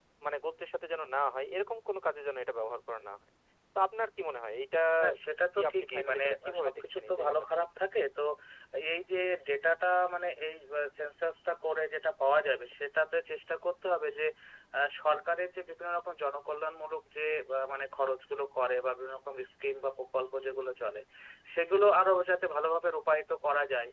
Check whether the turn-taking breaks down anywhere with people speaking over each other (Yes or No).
Yes